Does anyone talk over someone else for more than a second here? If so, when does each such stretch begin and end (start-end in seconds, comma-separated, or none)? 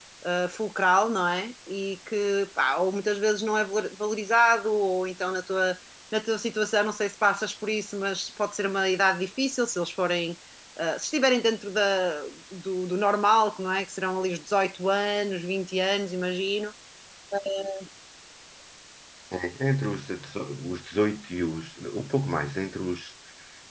none